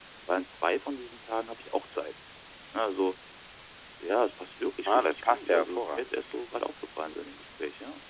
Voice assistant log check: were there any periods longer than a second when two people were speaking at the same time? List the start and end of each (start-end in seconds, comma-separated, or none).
4.8-6.2